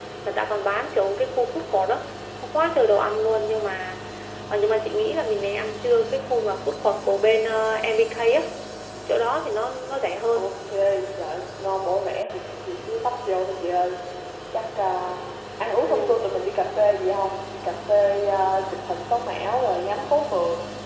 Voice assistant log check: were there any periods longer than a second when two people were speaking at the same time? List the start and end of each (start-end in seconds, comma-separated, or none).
none